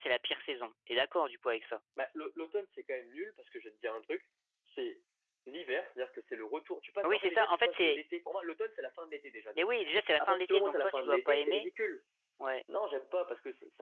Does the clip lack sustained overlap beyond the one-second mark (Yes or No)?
No